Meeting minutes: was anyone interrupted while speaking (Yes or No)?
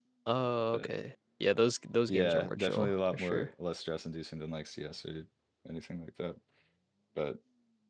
Yes